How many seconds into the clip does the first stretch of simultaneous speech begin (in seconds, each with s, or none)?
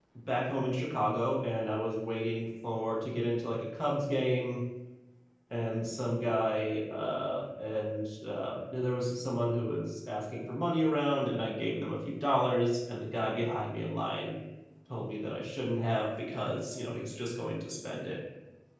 none